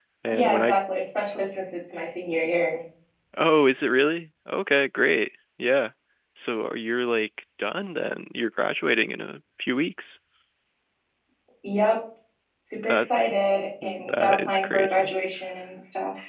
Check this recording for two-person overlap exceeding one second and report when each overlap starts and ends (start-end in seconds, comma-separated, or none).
13.8-15.1